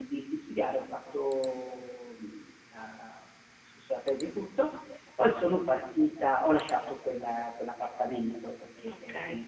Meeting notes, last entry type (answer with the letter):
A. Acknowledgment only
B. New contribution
A